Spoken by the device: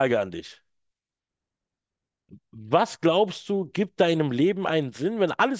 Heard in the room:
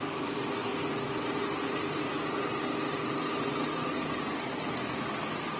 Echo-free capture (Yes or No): Yes